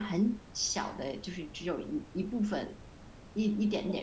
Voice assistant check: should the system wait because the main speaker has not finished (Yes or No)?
No